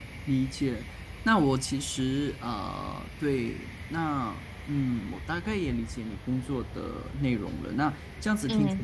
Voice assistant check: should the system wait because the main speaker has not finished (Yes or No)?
Yes